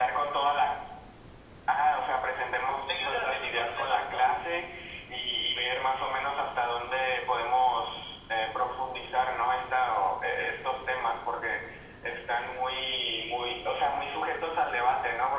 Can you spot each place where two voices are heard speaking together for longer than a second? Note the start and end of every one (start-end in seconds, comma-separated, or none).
2.9-4.3